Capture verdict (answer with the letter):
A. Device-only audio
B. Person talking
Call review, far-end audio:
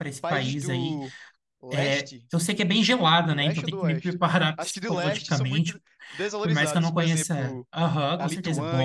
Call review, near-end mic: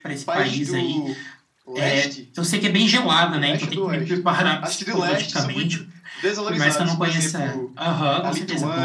A